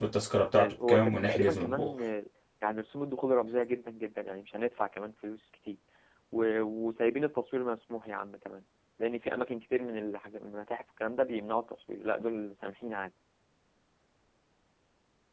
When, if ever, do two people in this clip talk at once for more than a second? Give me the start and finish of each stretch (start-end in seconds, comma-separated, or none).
0.5-2.0